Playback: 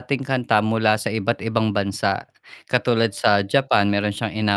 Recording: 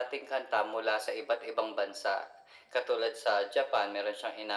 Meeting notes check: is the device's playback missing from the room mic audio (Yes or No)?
No